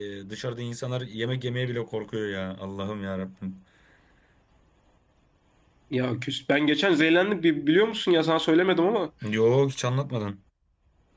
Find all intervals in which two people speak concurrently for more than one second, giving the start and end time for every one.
none

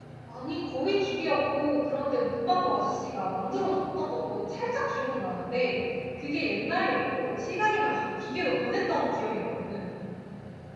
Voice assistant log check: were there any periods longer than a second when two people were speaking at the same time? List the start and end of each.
none

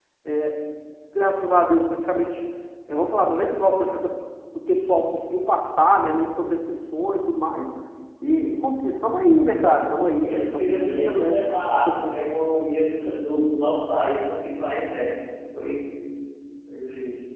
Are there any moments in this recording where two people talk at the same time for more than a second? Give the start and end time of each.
10.2-11.4

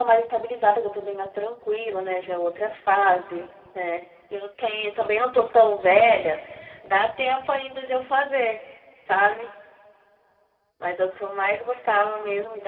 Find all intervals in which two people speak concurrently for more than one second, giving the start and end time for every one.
none

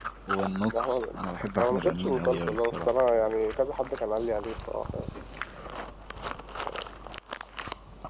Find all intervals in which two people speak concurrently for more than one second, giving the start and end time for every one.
1.6-2.9

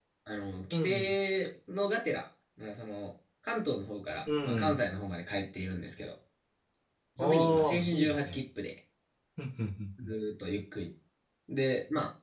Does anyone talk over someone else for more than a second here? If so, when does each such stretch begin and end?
7.2-8.4

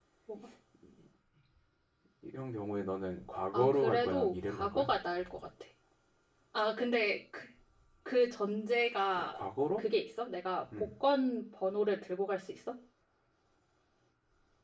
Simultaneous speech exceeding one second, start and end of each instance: 3.5-4.9

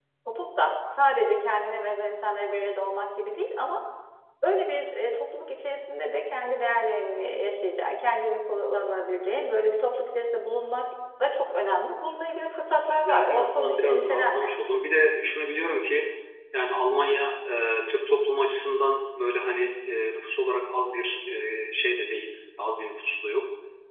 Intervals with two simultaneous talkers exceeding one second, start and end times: 12.7-14.5

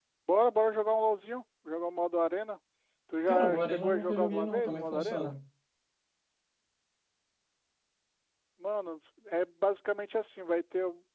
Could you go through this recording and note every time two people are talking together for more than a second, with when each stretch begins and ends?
3.3-5.3

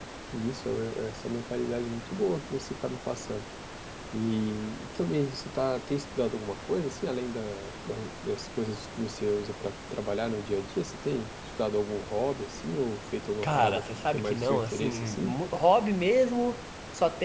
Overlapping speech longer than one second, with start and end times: 13.4-15.3

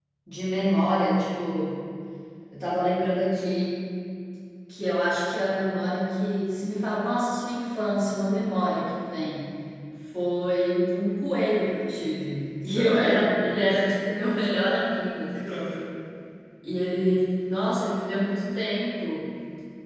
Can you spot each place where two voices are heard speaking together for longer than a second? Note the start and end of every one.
12.7-13.9

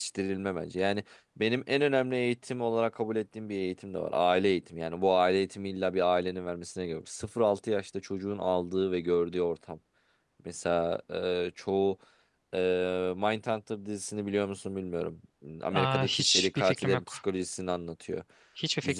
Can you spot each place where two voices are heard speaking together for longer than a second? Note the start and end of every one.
15.7-17.1

